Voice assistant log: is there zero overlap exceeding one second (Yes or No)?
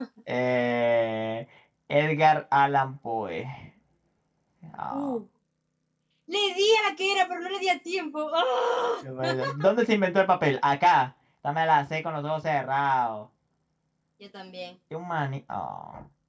Yes